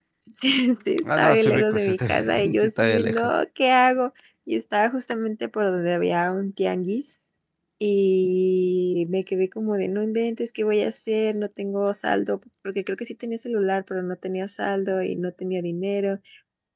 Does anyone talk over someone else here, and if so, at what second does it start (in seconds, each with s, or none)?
1.2 s